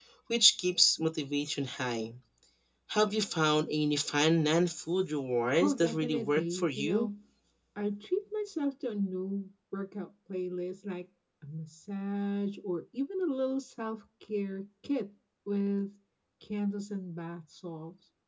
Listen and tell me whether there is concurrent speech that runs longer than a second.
Yes, from 5.5 s

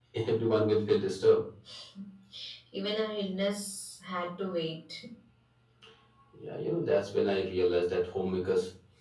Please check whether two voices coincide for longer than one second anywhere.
No

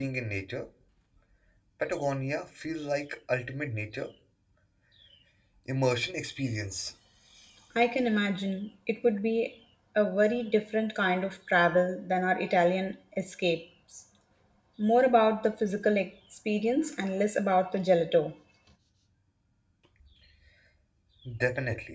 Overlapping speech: No

